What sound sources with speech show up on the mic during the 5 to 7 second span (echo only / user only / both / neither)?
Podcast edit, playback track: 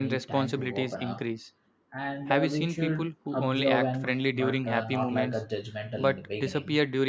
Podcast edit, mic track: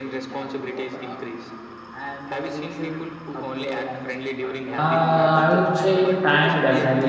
both